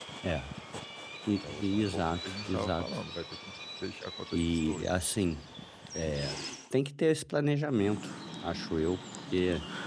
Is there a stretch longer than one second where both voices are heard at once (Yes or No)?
Yes